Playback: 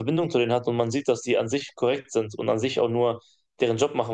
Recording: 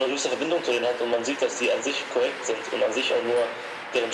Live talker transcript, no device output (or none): none